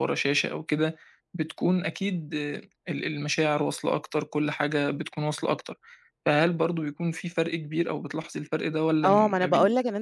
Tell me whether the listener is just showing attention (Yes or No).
No